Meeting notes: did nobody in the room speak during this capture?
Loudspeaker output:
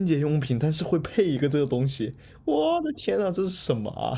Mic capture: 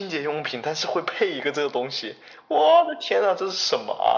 Yes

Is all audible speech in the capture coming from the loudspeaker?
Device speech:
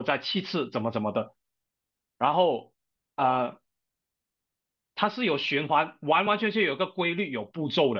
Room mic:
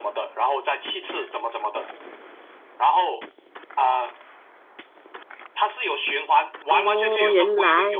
No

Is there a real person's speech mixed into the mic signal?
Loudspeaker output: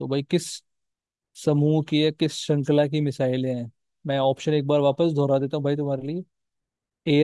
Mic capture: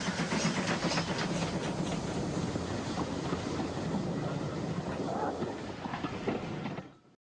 No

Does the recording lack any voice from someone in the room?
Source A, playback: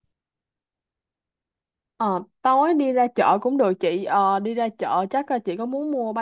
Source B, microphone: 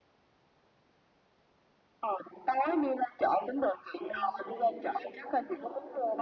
No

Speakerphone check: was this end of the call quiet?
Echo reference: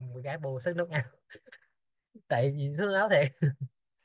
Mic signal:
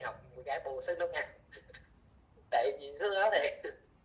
Yes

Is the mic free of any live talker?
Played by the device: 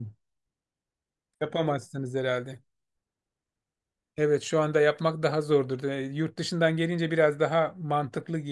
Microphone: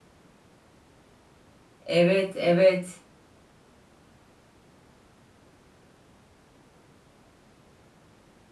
No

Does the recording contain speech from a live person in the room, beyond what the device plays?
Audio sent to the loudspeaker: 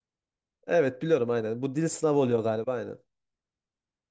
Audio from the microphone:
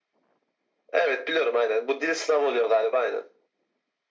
No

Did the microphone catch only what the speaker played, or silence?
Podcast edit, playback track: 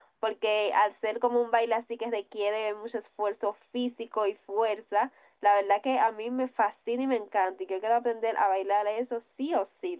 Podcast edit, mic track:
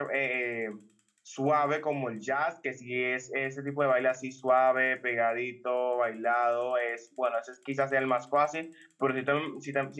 No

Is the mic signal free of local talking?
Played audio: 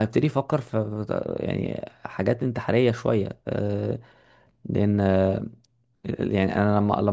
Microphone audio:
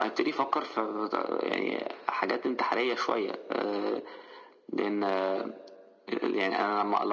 Yes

